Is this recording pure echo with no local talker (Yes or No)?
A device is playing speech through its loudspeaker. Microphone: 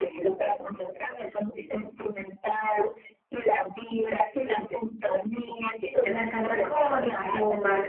No